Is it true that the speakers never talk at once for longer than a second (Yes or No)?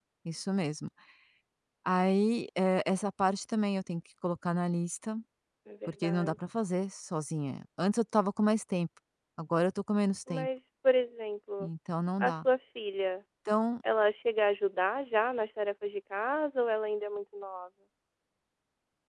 Yes